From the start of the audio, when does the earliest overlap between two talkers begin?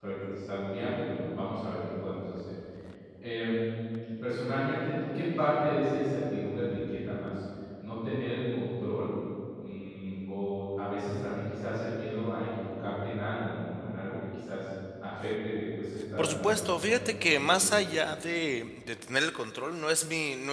16.2 s

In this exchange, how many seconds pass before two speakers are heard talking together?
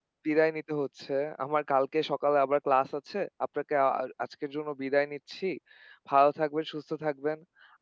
none

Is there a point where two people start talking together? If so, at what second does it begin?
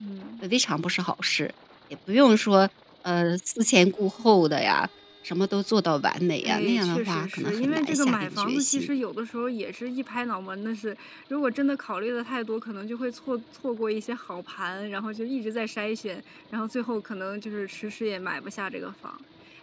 6.4 s

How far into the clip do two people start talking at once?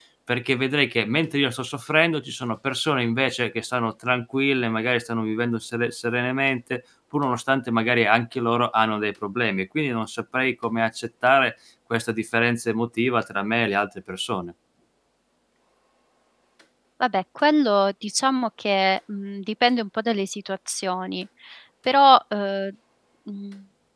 none

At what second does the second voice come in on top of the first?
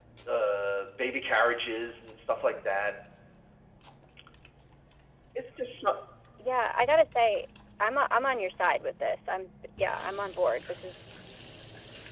none

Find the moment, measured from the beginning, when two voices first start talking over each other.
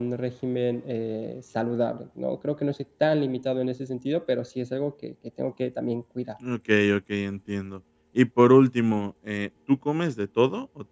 none

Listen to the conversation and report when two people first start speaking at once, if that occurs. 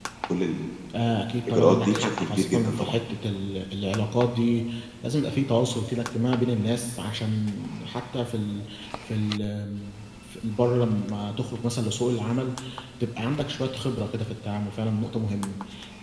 1.5 s

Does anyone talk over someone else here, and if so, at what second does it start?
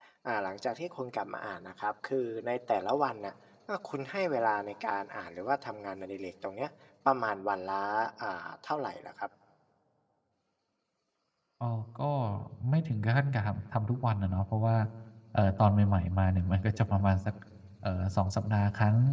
none

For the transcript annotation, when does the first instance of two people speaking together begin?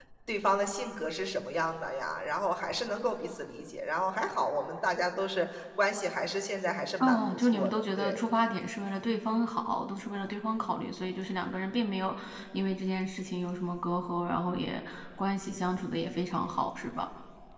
7.0 s

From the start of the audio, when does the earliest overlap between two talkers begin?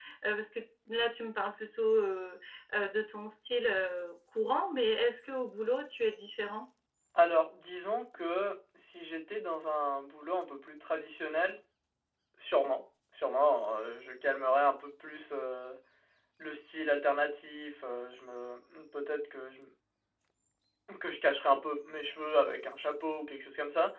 none

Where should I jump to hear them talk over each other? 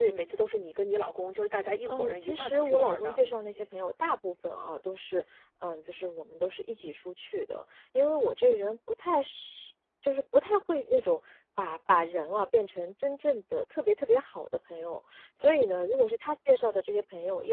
1.9 s

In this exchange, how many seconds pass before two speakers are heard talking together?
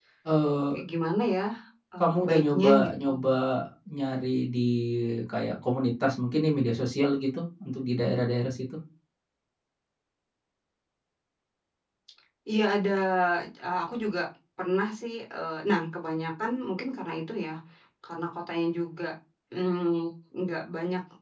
2.0 s

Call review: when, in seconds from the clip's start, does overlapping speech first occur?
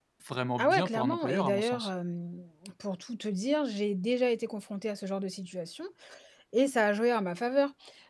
0.6 s

